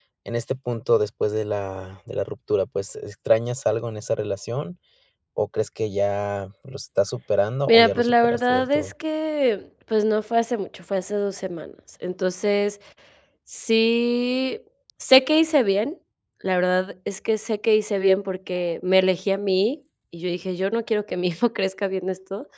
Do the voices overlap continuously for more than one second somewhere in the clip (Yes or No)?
Yes